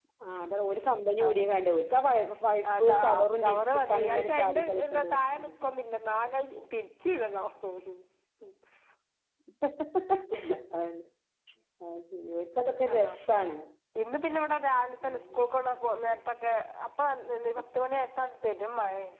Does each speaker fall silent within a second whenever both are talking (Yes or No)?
No